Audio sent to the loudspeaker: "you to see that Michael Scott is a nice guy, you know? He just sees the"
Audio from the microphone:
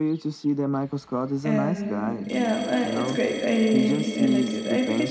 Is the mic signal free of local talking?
No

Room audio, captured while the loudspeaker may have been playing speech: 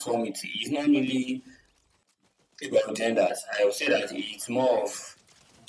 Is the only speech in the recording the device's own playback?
Yes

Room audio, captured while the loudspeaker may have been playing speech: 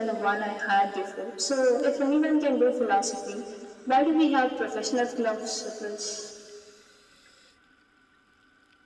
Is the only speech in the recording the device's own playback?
Yes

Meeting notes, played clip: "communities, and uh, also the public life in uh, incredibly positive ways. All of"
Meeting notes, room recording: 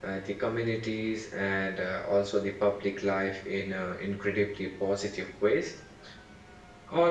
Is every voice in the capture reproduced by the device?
Yes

